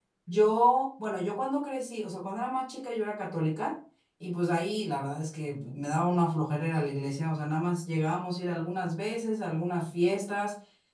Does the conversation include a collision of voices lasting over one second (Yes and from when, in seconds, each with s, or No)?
No